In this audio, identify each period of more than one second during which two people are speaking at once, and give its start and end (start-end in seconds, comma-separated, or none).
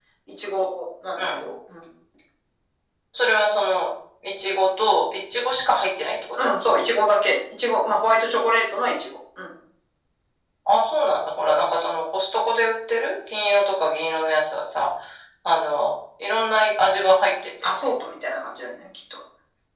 none